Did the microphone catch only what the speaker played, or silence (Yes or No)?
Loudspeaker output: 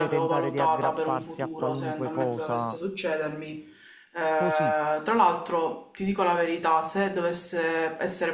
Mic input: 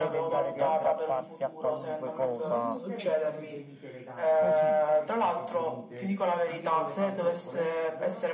No